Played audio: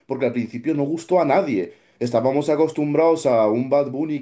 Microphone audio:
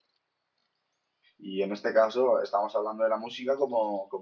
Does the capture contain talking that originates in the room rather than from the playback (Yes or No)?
Yes